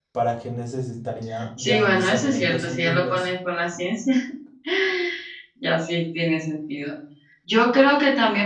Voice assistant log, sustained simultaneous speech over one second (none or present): present